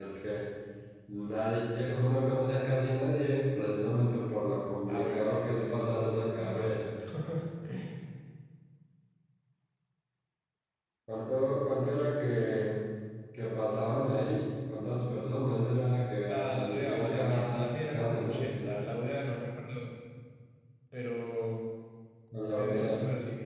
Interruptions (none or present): present